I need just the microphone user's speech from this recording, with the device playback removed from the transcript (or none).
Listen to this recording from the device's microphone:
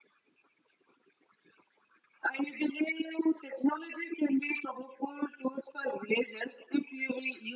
none